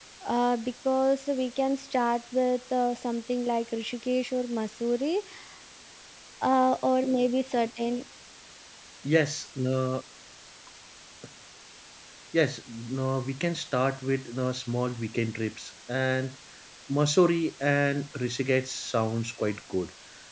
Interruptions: none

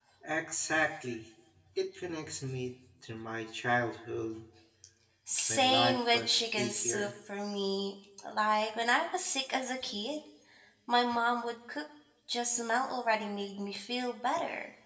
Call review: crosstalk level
present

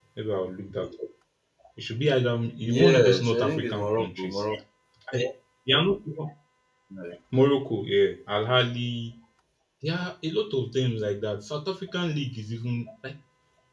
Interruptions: present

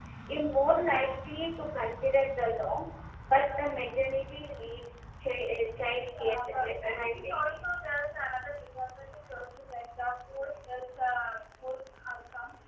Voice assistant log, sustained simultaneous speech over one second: present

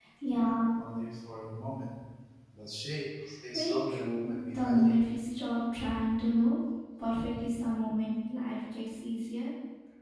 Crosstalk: present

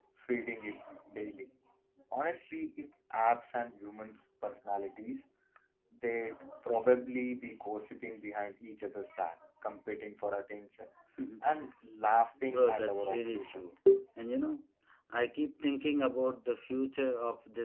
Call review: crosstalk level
present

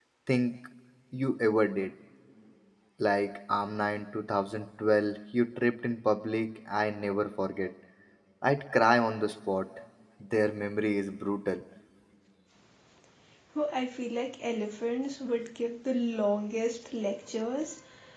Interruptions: none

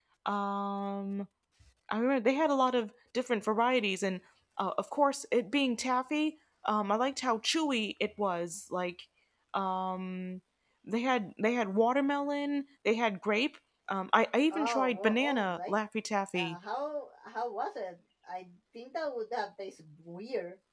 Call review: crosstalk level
present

